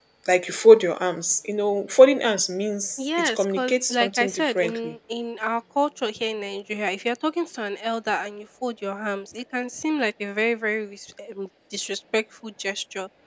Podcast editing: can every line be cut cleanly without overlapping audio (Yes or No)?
No